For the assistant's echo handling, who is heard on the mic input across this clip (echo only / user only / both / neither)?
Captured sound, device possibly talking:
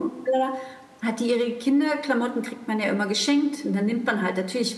echo only